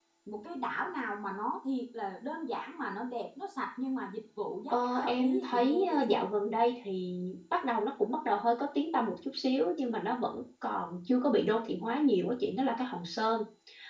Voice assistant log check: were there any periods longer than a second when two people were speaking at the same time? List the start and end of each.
4.7-6.2

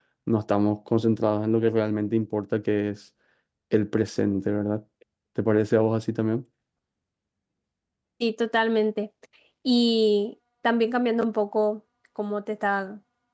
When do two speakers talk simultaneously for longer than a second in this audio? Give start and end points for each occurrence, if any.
none

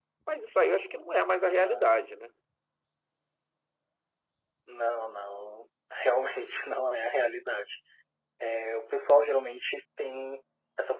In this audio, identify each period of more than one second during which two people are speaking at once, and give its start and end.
none

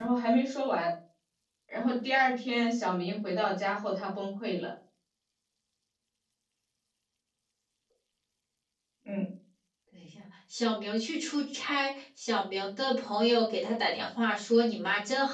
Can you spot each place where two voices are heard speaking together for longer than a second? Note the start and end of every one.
none

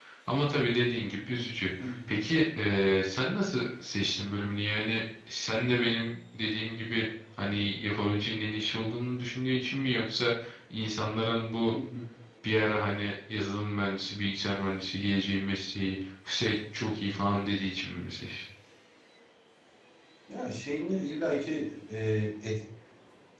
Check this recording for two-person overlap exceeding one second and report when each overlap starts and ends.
none

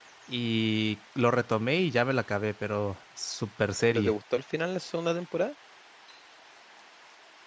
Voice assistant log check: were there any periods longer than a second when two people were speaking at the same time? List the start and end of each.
none

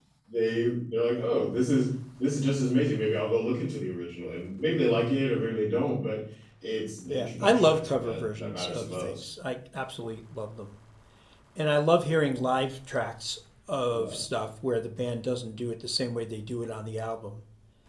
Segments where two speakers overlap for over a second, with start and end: 7.1-9.3

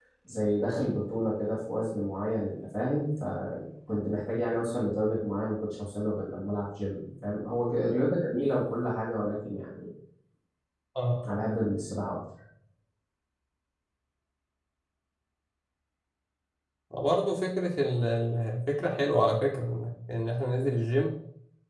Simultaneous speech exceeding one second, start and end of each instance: none

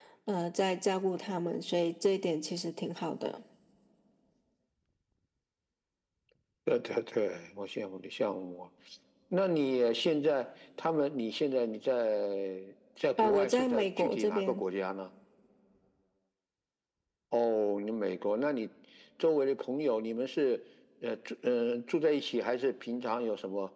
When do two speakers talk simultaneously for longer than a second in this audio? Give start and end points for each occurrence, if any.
13.2-14.6

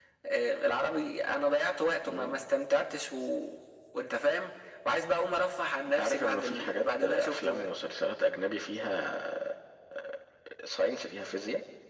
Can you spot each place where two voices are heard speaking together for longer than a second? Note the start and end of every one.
5.9-7.7

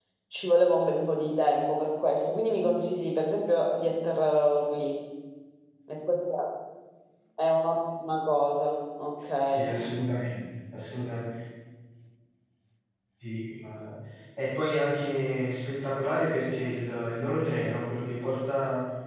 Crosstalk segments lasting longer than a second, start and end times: none

